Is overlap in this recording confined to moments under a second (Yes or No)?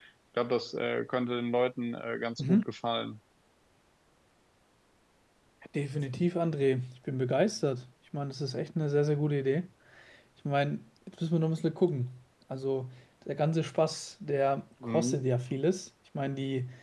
Yes